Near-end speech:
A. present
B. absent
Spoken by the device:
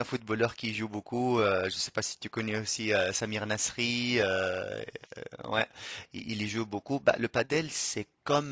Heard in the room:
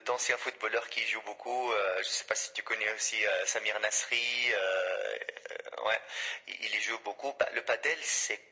B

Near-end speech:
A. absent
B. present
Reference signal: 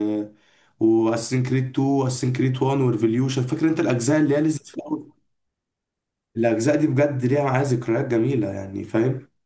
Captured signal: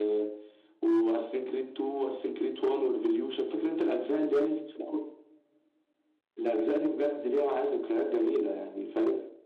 A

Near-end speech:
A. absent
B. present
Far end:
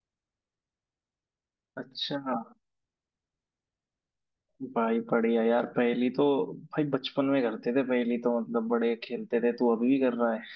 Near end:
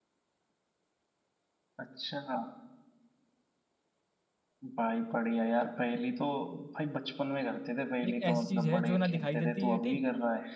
B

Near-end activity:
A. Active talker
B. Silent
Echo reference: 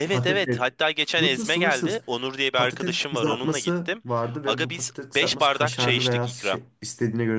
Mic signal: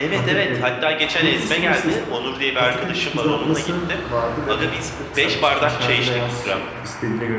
B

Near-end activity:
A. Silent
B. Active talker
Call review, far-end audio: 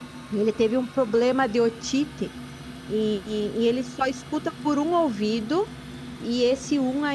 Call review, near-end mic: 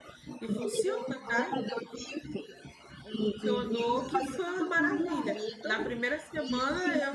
B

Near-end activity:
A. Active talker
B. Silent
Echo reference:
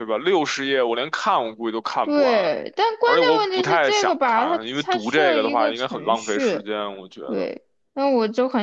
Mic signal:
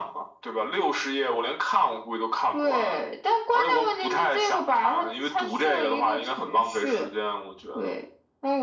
B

